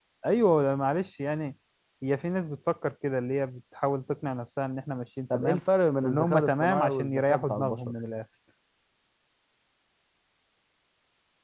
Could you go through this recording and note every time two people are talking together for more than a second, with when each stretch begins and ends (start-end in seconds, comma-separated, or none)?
6.0-7.8